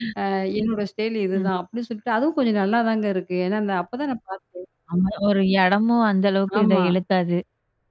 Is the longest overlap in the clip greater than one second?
No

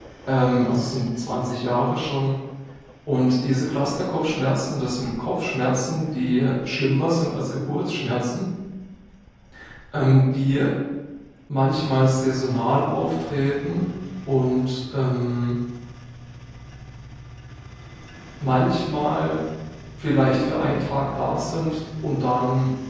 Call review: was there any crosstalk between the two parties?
No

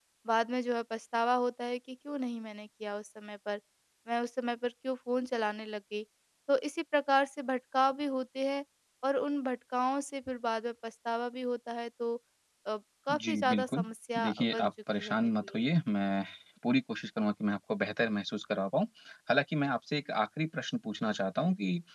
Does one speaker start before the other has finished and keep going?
Yes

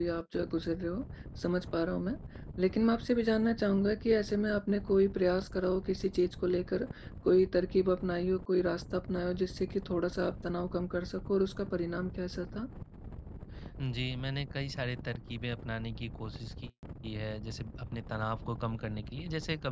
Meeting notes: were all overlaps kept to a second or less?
Yes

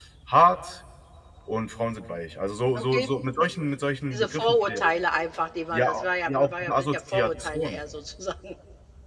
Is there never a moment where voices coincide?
No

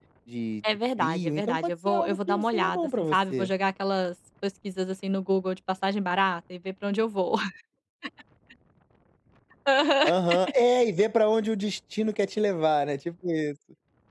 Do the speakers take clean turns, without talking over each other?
No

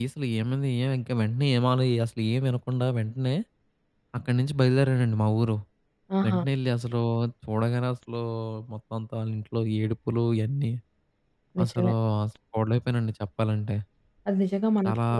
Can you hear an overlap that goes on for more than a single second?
No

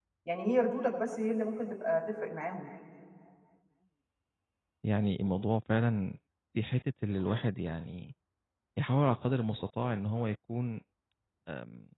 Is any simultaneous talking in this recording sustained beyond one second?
No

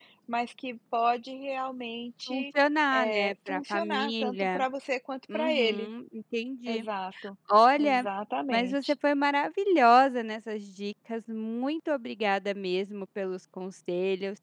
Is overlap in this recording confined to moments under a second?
No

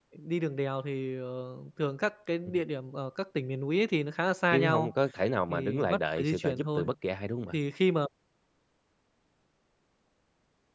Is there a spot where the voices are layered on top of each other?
Yes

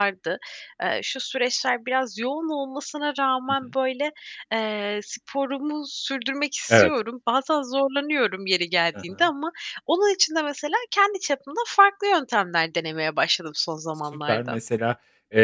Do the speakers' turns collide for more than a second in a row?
No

